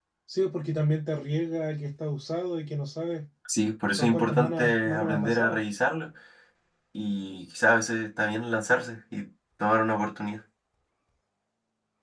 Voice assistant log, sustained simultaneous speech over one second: present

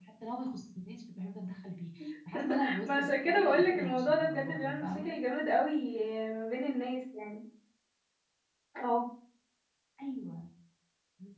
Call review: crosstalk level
present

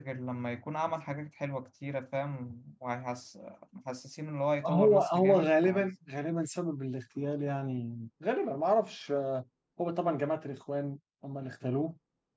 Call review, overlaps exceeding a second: present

